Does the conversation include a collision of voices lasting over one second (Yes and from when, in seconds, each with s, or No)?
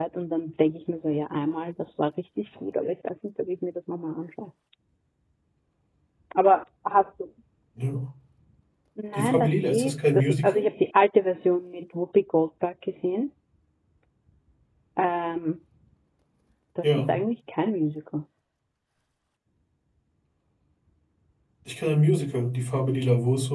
Yes, from 9.1 s